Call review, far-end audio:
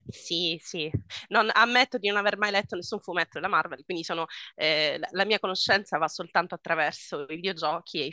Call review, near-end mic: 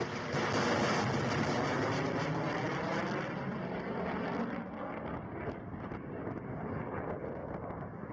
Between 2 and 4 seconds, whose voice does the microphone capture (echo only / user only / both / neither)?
neither